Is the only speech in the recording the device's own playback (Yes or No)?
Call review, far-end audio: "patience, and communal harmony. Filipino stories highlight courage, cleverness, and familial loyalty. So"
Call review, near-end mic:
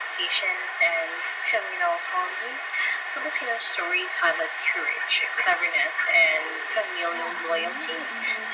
No